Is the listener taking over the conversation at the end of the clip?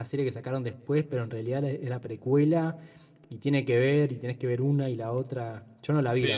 Yes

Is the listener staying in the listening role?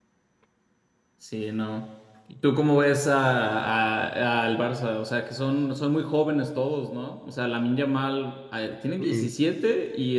Yes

